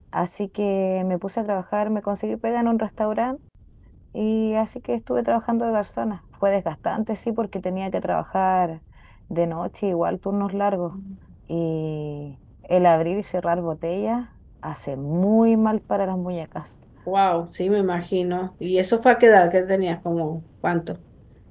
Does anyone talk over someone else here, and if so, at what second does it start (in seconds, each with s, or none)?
none